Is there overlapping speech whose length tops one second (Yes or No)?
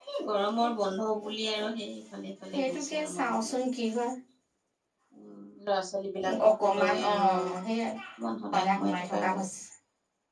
Yes